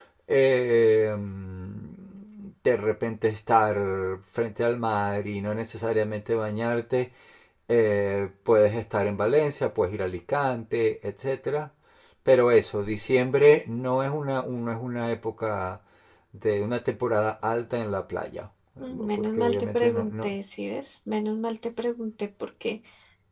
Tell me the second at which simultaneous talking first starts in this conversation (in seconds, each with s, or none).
18.8 s